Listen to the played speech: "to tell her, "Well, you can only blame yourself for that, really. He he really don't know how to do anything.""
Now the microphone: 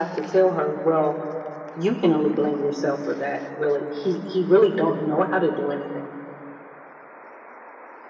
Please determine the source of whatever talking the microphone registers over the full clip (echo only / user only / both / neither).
echo only